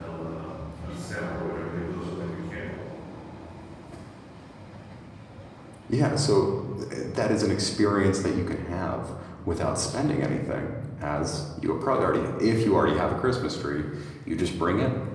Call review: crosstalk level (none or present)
none